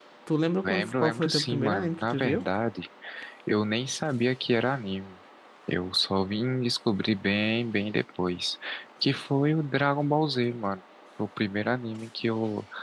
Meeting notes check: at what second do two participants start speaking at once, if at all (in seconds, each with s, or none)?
0.6 s